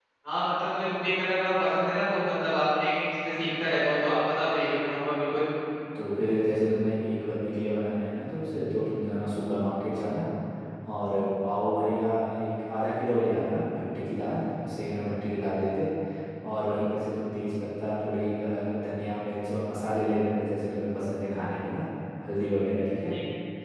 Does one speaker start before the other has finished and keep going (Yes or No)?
No